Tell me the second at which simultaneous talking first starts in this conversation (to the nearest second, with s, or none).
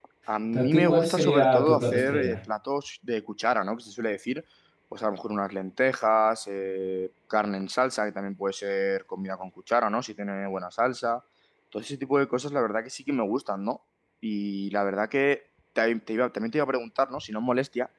1 s